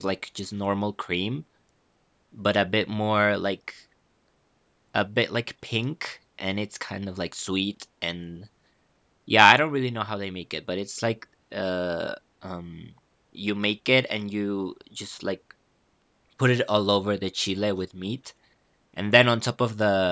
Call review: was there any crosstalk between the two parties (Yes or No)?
No